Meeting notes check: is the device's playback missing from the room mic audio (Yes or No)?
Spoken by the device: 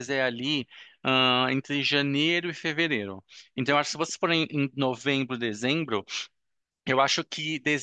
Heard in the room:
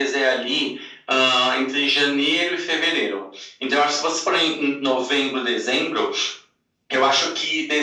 No